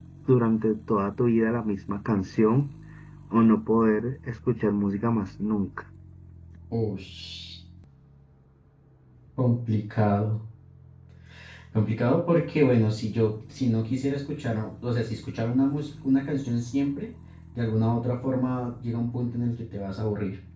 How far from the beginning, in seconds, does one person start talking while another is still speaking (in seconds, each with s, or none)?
none